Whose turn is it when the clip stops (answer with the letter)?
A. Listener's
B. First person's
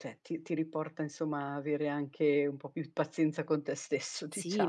A